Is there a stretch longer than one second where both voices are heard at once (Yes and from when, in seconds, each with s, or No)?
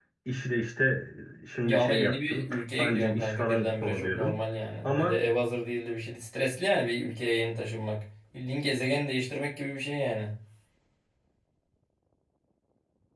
Yes, from 1.6 s